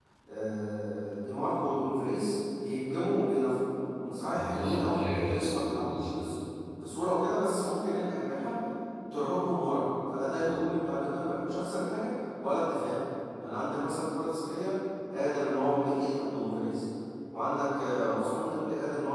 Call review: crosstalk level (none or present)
present